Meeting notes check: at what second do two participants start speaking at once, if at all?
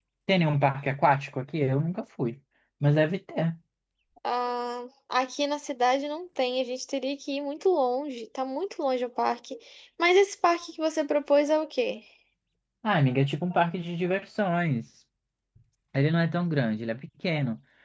none

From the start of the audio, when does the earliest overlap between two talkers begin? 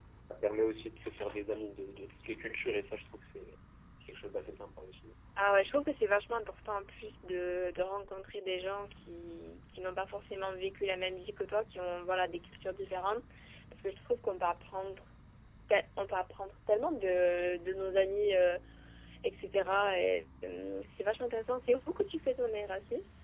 none

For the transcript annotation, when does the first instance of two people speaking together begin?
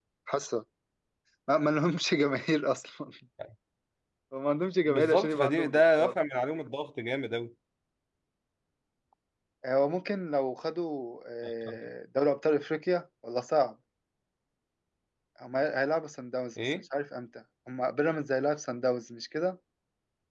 4.8 s

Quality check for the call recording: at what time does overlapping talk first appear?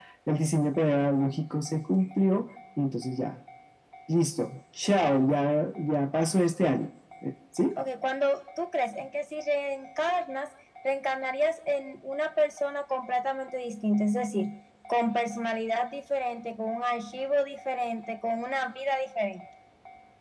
none

